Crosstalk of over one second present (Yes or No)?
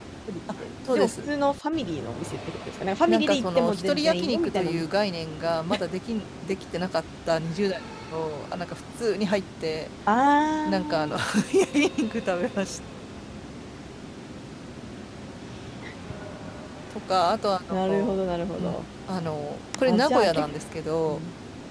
Yes